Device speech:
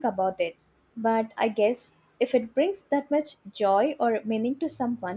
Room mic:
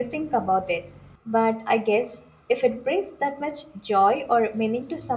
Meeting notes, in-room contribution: none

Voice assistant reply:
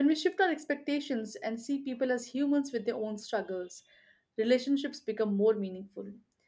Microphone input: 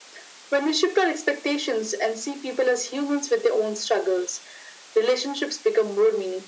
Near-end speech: none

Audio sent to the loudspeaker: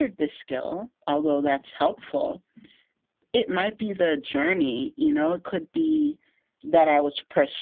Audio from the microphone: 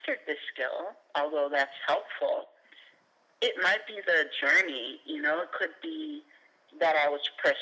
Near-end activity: none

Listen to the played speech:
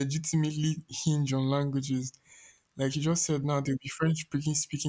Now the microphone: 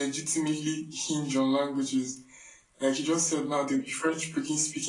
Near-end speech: none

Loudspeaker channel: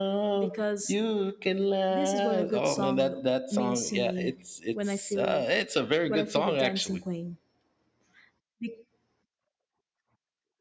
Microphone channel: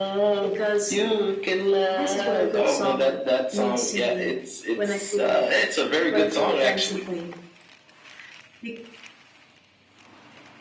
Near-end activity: none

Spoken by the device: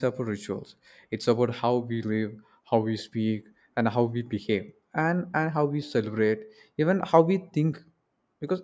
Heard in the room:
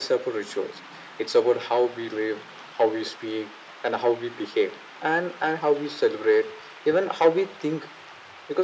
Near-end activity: none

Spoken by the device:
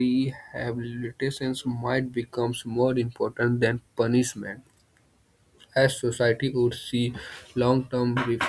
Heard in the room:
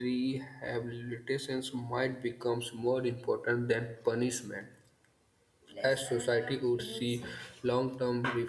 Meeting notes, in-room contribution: present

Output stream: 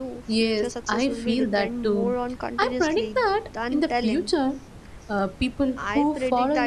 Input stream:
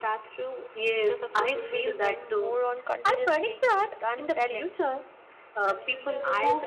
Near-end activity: present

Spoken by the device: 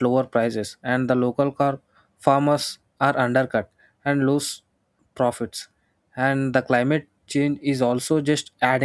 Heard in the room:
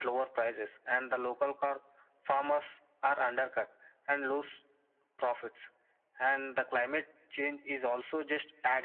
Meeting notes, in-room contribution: none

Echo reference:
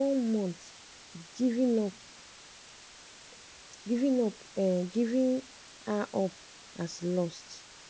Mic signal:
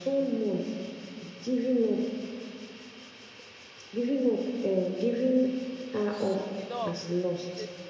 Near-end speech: present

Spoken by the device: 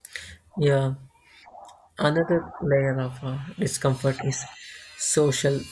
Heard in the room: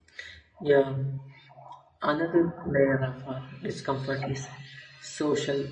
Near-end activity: none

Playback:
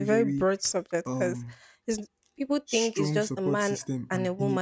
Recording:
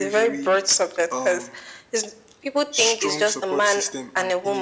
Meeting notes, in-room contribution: none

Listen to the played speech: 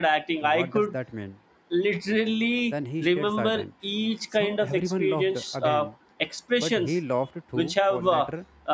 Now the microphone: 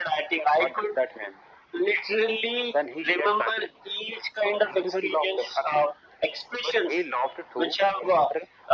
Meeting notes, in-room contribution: none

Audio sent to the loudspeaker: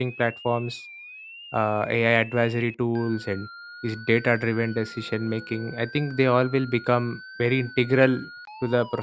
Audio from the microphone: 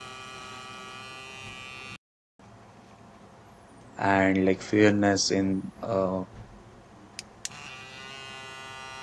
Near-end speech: present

